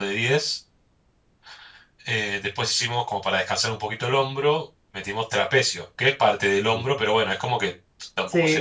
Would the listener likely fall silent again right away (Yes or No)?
No